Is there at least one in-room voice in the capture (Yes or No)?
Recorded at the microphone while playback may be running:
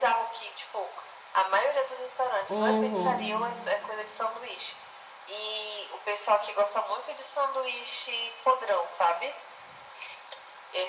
Yes